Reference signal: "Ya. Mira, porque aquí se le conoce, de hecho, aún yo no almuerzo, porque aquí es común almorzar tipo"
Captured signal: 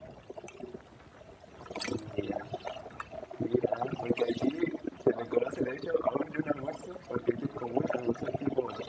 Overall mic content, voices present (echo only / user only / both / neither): echo only